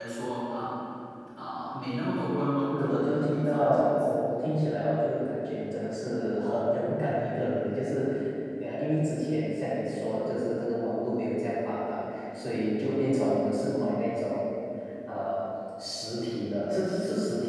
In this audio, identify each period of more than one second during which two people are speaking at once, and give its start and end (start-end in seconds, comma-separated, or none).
2.7-4.2